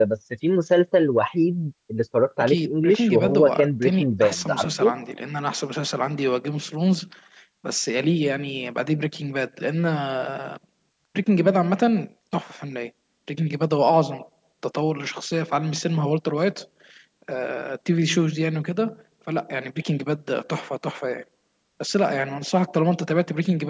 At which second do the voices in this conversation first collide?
2.4 s

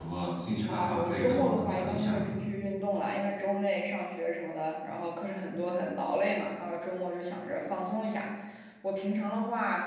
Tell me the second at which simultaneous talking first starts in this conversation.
0.7 s

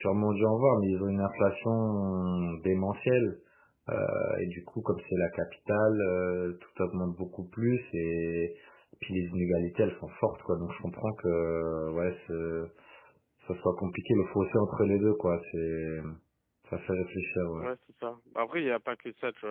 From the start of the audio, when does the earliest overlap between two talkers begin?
none

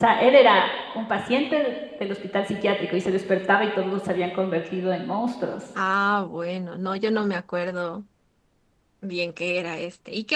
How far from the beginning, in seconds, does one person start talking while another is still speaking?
none

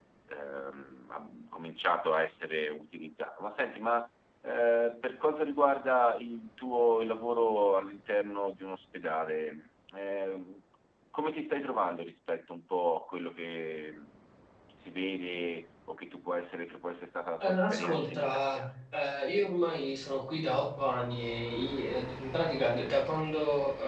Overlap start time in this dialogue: 17.4 s

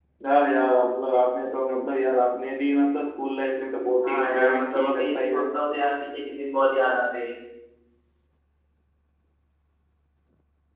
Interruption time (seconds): 4.0 s

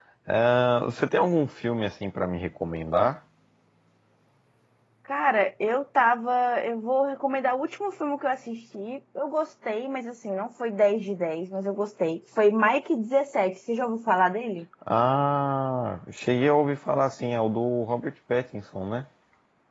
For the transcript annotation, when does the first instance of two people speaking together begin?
none

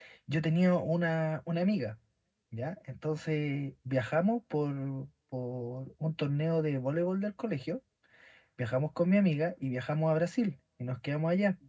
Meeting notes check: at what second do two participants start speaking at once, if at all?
none

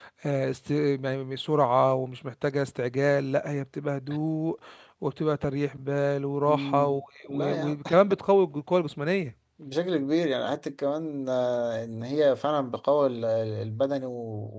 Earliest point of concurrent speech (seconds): 6.5 s

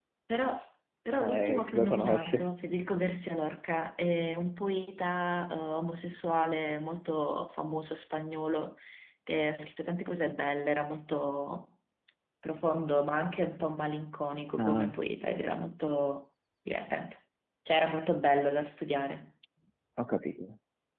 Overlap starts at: 1.2 s

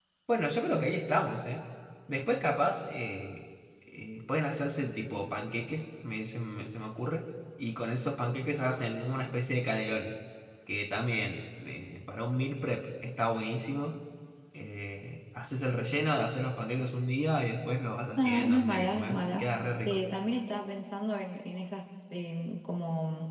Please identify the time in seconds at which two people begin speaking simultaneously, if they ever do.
18.2 s

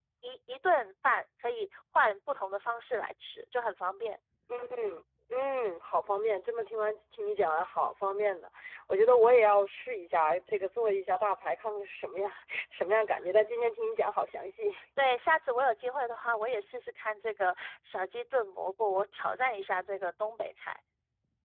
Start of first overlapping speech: none

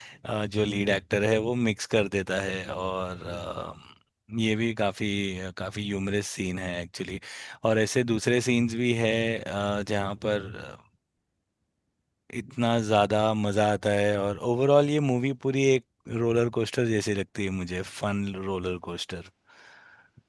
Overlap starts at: none

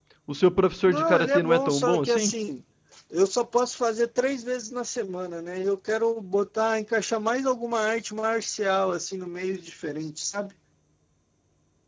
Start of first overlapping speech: 0.9 s

